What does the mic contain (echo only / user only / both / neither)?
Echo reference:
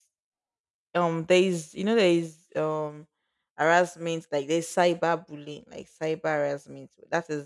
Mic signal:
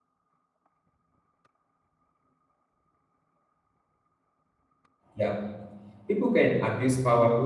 user only